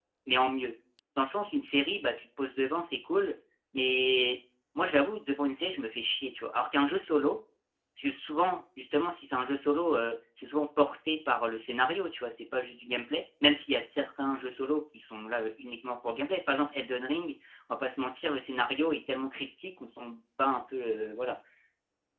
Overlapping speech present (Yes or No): No